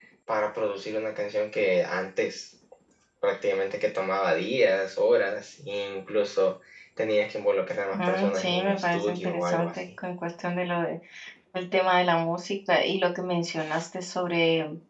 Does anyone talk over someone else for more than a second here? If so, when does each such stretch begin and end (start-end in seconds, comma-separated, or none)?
7.9-9.8